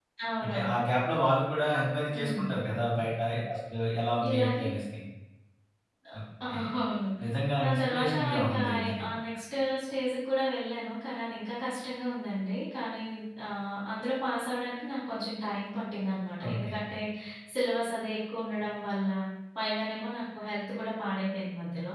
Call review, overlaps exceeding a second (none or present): present